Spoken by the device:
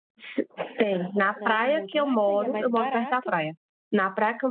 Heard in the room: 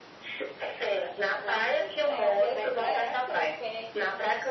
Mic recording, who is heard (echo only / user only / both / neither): both